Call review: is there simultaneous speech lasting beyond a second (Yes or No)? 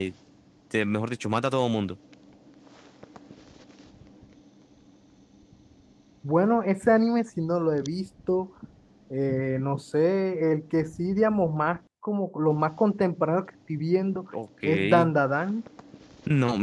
No